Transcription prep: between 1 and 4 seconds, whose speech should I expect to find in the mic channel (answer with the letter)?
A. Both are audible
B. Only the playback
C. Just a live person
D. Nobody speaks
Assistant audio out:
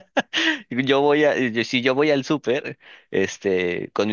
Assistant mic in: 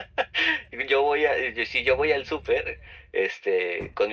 B